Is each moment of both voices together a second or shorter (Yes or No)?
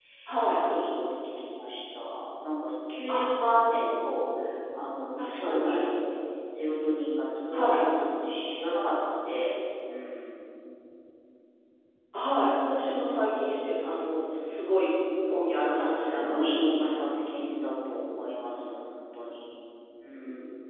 No